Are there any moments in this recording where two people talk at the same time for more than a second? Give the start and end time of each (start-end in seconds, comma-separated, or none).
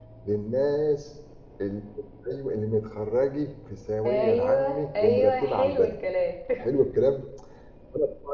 4.0-5.9